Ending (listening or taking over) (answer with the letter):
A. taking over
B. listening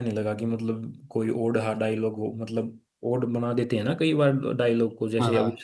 A